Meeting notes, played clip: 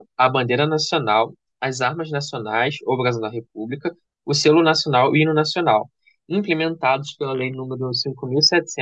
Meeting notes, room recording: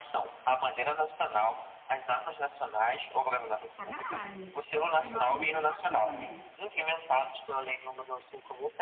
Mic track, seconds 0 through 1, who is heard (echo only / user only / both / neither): echo only